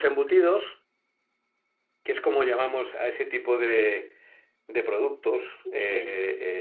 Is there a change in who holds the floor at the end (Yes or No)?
No